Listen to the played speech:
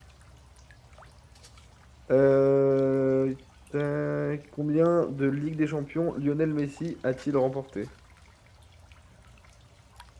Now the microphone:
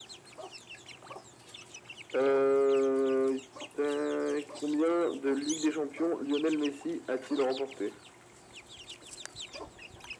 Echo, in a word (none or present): present